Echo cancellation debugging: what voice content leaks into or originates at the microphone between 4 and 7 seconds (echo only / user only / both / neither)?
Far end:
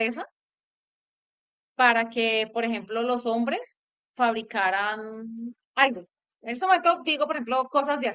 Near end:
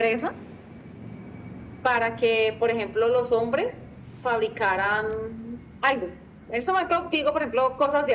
echo only